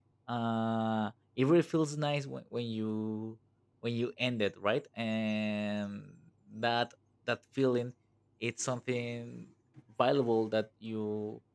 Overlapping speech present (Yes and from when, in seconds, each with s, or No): No